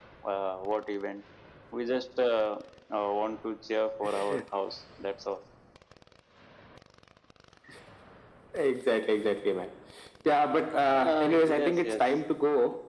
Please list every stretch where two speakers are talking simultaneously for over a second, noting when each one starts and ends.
10.9-12.2

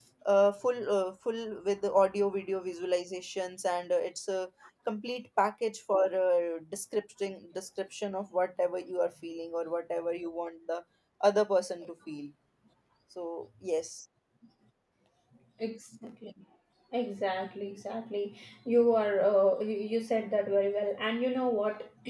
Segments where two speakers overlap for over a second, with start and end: none

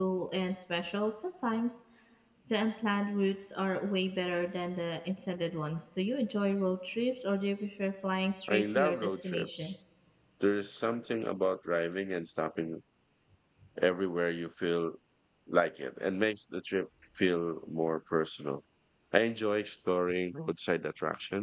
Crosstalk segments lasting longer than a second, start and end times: 8.5-9.7

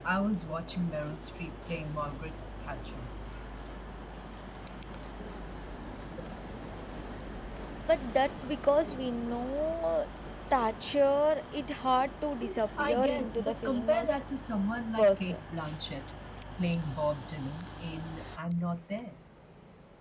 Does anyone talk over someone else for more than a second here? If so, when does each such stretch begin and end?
12.8-14.2

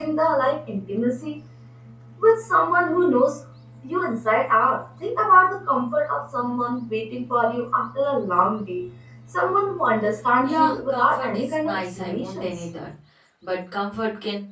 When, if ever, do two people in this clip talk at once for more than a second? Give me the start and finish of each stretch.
10.4-12.5

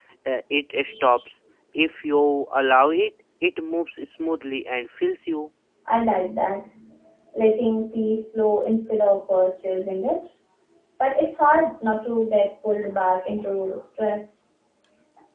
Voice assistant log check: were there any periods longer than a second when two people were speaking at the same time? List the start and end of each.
none

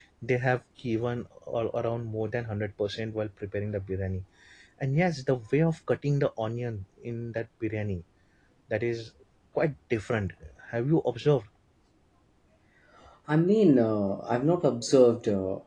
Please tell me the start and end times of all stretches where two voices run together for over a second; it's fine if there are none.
none

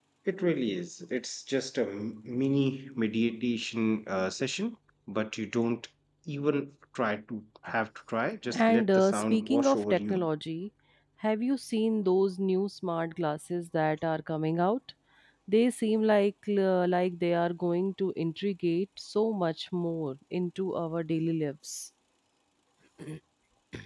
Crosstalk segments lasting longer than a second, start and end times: 8.5-10.3

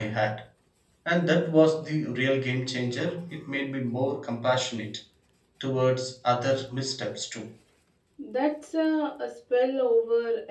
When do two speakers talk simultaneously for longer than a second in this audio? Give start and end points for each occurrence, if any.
none

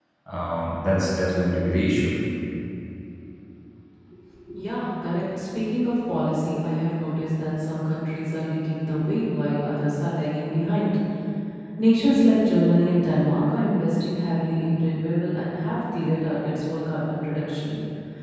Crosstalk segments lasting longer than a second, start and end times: none

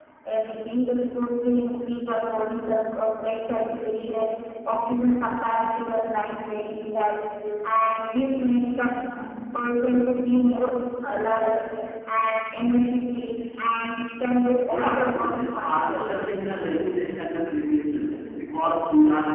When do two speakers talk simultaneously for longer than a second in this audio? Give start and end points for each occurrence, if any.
14.7-16.0

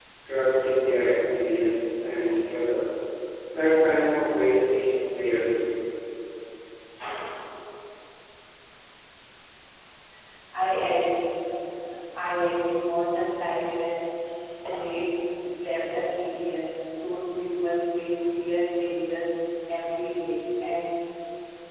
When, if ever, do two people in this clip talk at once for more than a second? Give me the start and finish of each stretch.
none

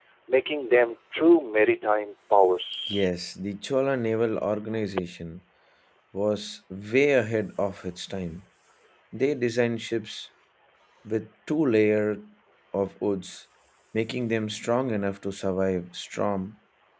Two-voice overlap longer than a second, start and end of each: none

